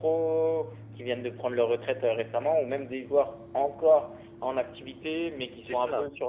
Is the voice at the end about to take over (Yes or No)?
No